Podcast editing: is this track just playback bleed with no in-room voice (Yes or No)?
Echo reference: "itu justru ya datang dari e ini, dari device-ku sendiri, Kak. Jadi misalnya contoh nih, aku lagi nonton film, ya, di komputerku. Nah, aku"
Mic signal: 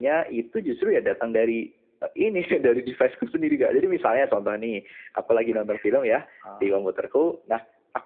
No